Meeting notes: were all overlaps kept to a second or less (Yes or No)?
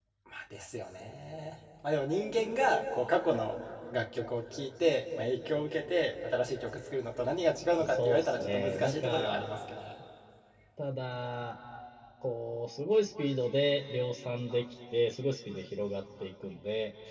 No